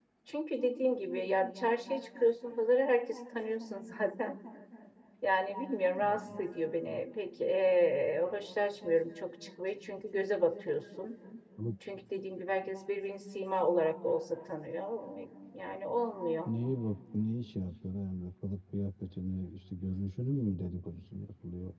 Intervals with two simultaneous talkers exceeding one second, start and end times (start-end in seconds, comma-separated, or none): none